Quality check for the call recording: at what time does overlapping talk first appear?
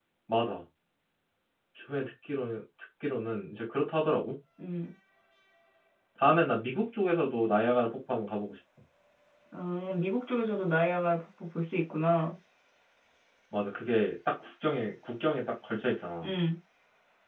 none

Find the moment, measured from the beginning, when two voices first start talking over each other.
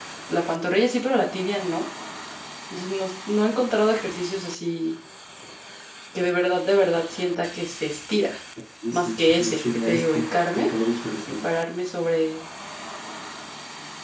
8.9 s

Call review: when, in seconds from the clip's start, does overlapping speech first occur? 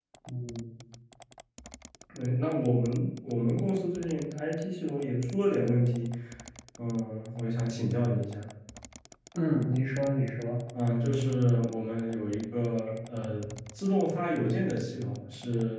none

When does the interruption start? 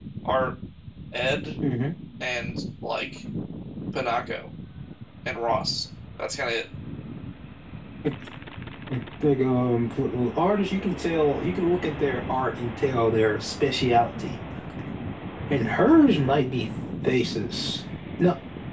none

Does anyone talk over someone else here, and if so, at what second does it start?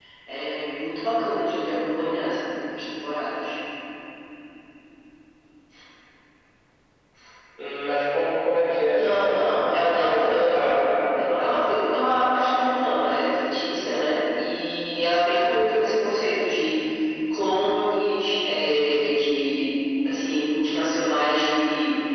8.9 s

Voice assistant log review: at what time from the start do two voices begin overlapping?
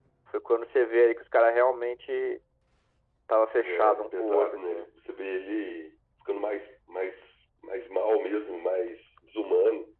3.6 s

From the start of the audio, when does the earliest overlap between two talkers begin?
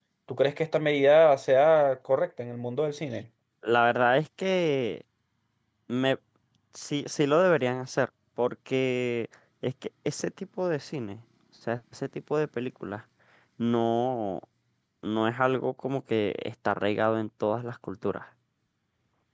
none

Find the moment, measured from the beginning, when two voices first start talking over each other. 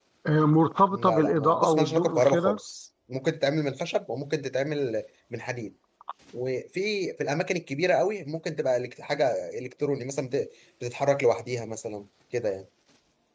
0.9 s

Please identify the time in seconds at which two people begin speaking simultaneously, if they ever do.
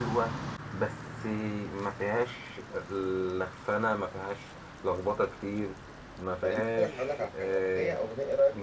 6.4 s

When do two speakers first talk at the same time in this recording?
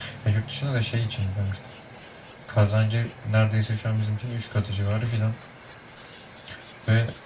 none

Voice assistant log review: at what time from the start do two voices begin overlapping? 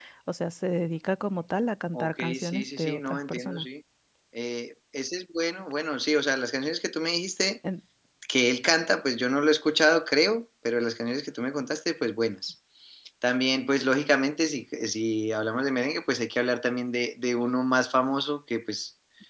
1.9 s

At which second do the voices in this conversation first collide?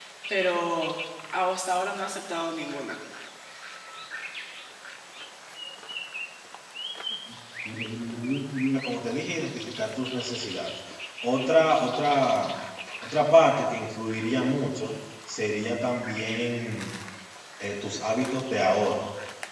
none

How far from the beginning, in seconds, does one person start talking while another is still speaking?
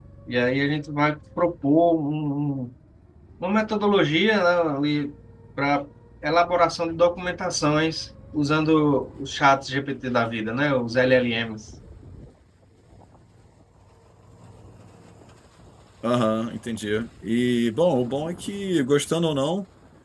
none

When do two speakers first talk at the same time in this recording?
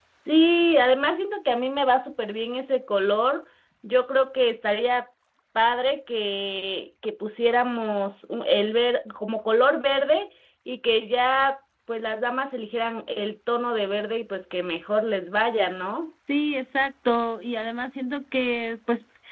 none

